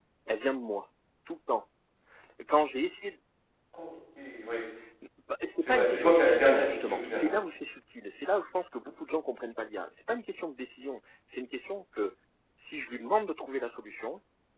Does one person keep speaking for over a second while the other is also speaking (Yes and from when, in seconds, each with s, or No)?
Yes, from 5.7 s